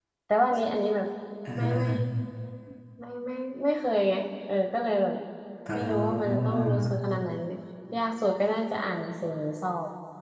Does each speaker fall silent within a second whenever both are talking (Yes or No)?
No